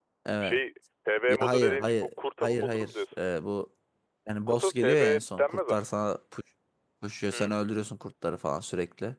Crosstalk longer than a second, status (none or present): present